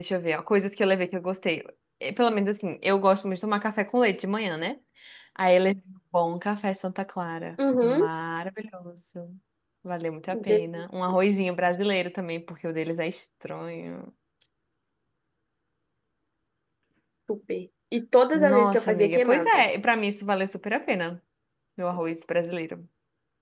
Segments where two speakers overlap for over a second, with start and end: 18.3-19.6

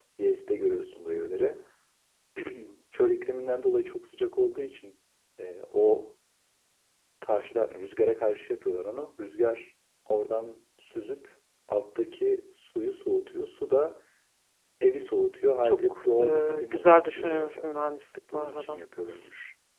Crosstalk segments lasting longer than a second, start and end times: 15.6-17.6

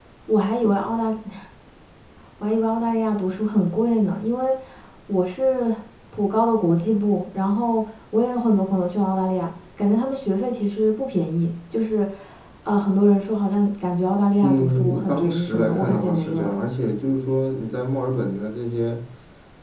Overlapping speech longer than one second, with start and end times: 14.4-16.5

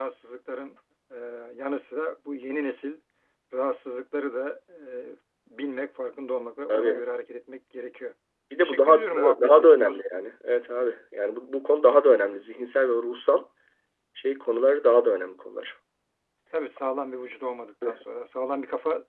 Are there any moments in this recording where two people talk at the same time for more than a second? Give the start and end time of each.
8.6-10.0

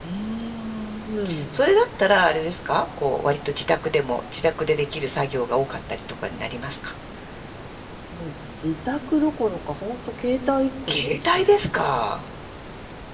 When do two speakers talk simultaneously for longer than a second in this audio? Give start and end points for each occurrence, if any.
10.9-12.2

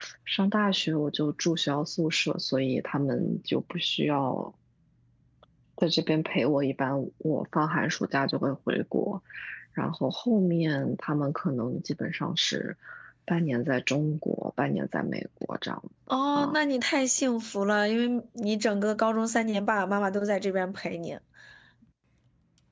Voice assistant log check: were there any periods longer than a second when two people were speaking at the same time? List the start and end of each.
none

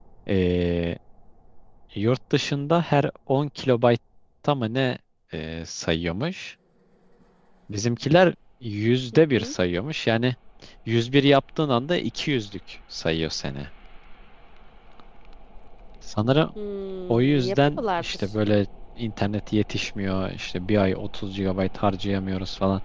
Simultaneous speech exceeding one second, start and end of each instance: 17.1-18.3

